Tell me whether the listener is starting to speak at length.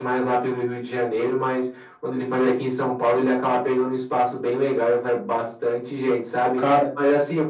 No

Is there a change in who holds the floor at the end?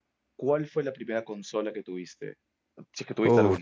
Yes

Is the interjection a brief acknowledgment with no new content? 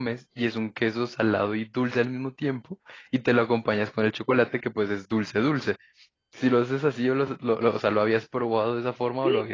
No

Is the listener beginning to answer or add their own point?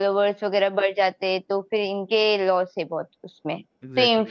No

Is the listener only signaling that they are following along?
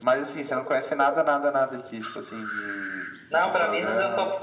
No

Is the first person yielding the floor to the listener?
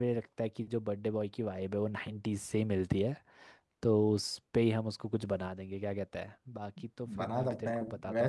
Yes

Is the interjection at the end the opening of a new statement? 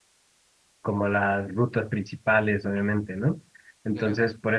No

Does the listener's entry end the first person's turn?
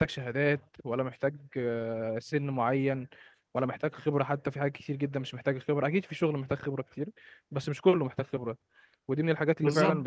No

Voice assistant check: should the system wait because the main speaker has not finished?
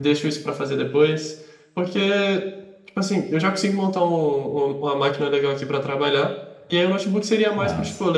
Yes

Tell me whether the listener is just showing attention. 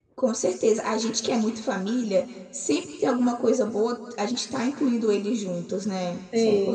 No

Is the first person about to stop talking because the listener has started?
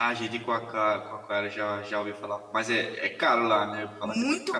Yes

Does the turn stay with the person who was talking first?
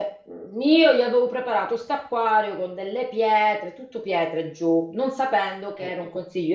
Yes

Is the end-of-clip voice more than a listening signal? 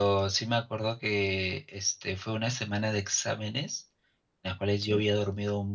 No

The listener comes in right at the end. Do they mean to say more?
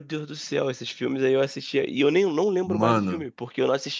No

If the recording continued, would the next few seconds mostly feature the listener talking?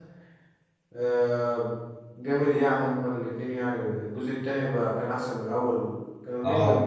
Yes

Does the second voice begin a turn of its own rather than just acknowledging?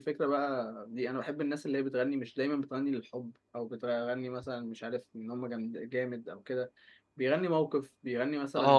Yes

